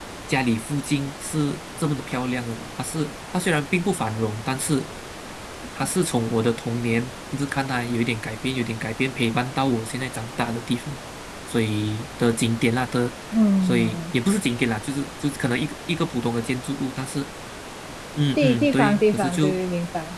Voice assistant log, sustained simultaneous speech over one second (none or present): present